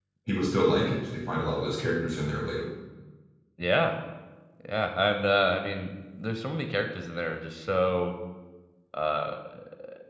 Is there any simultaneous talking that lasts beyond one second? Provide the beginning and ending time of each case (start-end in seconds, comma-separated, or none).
none